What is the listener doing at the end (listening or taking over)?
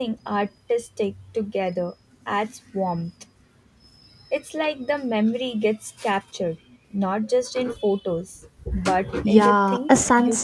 taking over